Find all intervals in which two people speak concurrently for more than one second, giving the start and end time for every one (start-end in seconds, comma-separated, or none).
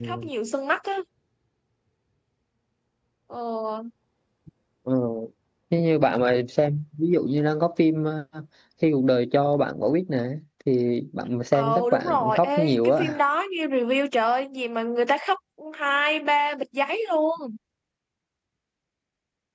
11.5-13.2